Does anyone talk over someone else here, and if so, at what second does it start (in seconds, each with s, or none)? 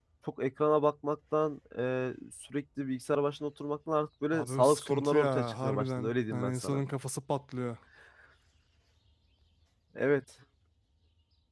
4.3 s